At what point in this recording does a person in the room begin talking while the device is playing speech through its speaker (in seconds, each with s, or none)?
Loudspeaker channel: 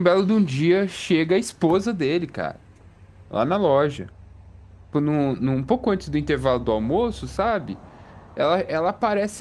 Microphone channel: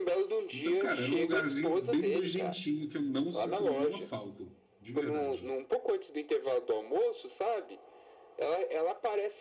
0.5 s